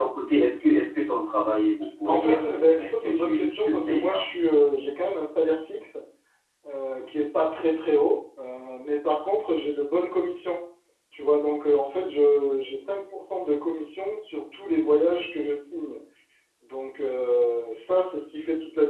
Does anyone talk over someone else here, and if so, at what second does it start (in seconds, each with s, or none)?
2.1 s